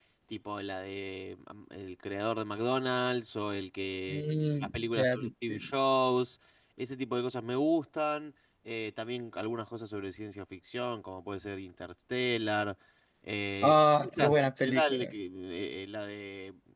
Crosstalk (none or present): present